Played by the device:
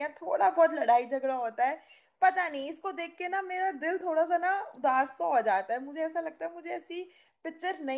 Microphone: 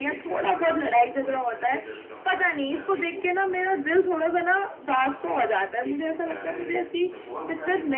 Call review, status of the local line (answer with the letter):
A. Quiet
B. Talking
B